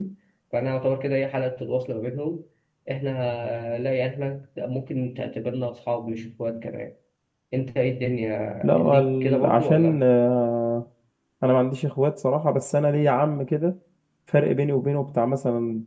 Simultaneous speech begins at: 8.6 s

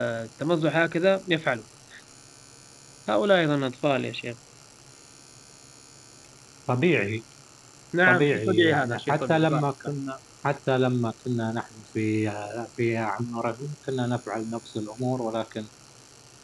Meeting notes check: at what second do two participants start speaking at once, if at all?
8.1 s

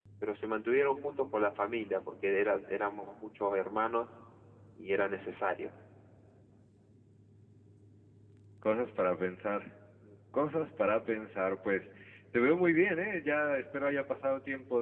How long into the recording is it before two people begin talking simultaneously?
none

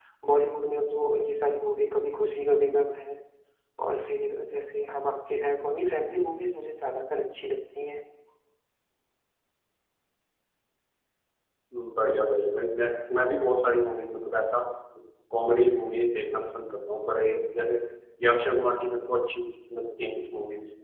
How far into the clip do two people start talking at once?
none

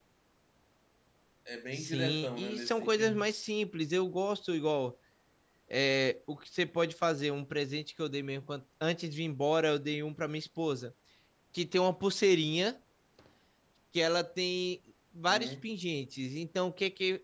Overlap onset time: 1.7 s

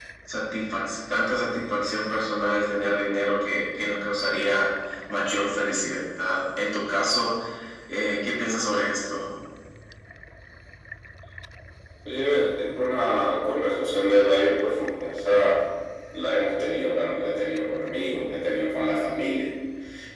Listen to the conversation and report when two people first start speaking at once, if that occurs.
none

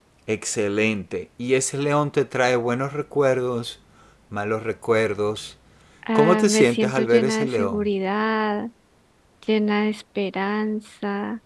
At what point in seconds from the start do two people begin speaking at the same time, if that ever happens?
6.2 s

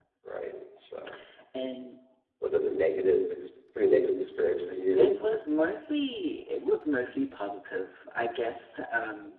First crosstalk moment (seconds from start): none

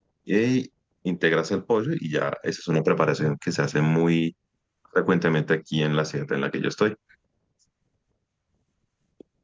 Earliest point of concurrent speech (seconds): none

